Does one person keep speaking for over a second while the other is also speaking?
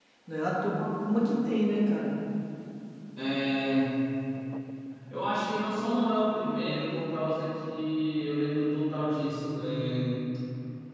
No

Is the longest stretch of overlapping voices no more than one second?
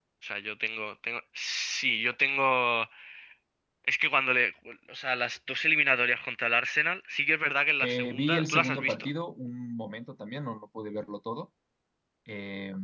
No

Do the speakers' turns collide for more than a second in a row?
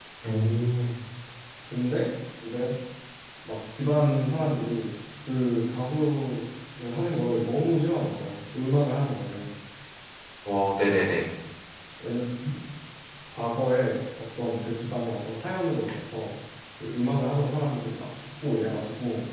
No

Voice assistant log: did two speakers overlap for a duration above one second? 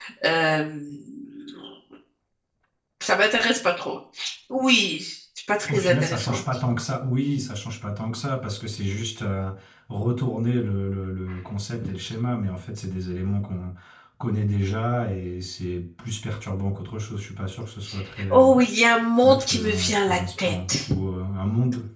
Yes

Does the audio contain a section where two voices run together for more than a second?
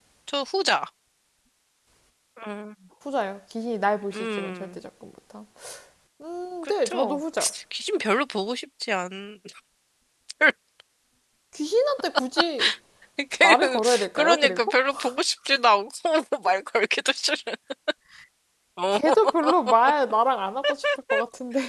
Yes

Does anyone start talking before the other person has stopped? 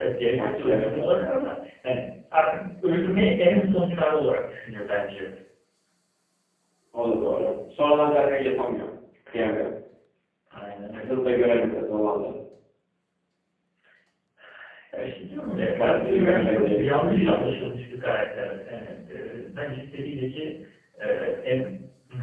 Yes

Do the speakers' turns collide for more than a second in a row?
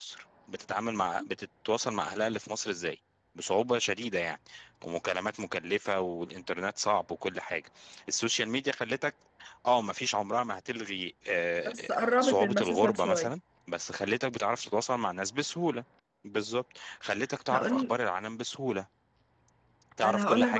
Yes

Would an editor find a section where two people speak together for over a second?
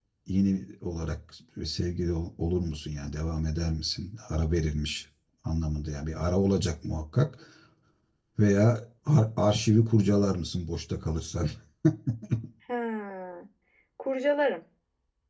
No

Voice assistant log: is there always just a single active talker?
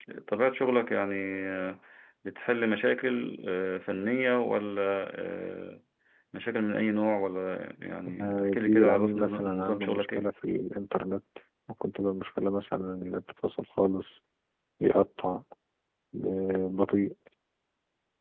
No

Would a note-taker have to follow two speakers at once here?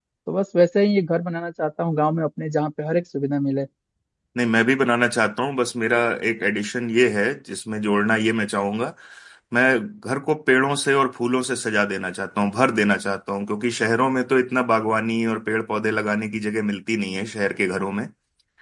No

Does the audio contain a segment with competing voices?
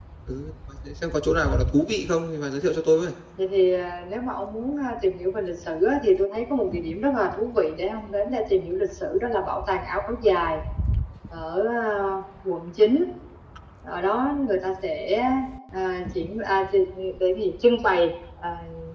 No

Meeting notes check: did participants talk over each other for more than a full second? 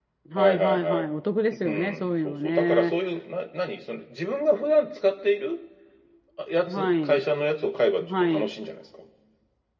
Yes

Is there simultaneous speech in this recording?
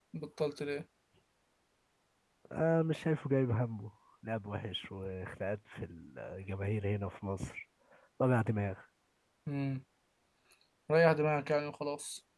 No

